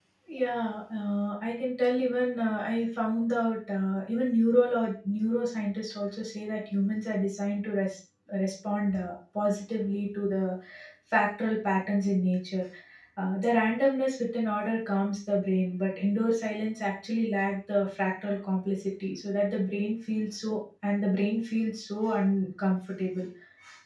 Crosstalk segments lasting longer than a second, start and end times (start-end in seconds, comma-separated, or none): none